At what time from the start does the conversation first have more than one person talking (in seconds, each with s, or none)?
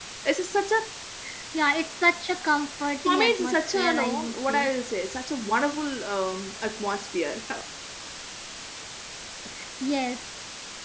3.0 s